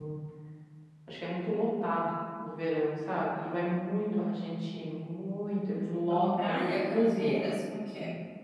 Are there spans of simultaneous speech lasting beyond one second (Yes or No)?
Yes